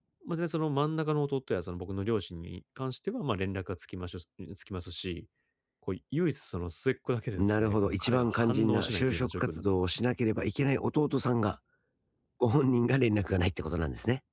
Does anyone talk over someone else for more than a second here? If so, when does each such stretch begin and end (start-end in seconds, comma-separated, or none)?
7.4-9.9